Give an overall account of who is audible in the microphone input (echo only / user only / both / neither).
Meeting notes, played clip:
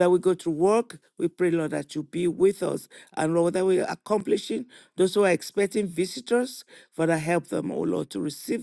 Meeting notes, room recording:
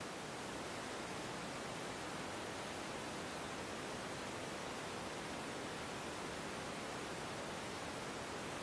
neither